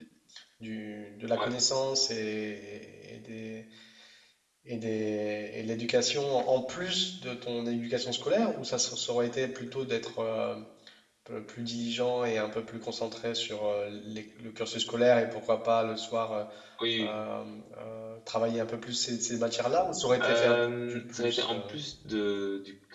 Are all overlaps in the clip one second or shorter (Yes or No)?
No